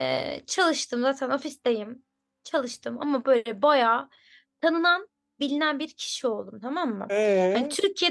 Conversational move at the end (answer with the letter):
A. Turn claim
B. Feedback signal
B